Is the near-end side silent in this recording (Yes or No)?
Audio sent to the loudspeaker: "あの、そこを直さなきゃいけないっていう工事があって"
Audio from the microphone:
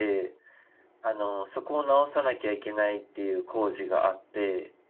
Yes